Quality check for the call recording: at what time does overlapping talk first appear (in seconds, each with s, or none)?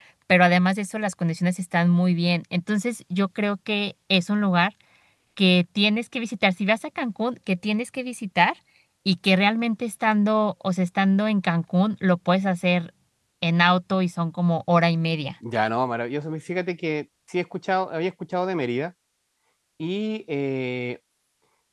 none